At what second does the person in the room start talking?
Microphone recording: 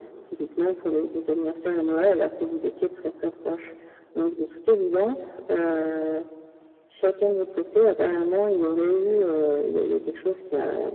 none

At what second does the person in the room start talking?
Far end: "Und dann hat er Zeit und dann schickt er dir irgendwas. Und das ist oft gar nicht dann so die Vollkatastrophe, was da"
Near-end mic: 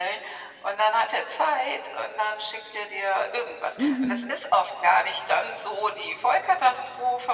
3.8 s

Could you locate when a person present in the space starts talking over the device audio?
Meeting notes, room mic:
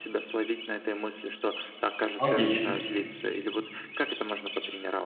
2.2 s

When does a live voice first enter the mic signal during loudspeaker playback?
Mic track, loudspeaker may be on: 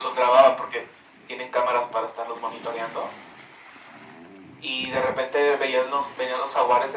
none

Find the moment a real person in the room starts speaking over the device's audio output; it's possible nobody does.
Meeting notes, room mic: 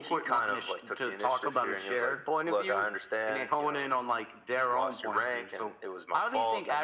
none

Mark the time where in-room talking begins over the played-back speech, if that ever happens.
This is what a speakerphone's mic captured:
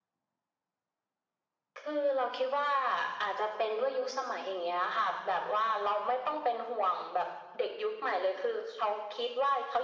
none

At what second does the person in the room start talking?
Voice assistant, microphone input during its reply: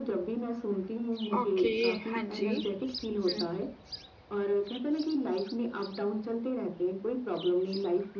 1.4 s

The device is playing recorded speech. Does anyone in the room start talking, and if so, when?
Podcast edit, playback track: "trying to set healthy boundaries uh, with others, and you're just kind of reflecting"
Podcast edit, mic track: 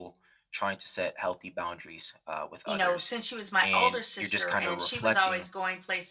2.6 s

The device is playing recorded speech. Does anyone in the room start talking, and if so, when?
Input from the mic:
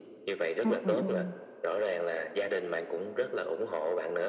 0.6 s

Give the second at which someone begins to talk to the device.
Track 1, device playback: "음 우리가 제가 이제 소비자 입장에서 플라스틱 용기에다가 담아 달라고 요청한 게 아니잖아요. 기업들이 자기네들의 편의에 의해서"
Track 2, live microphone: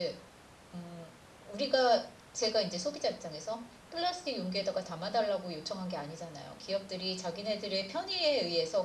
none

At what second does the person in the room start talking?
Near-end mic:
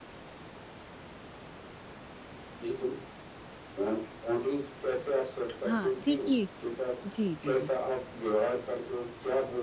5.6 s

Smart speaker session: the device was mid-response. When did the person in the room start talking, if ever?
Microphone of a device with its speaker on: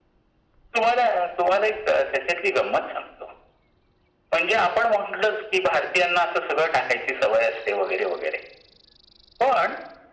none

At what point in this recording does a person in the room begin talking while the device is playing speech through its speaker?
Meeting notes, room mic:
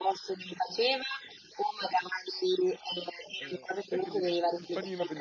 3.4 s

